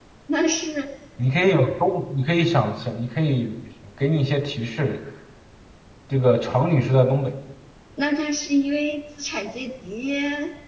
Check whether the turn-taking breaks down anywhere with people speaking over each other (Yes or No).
No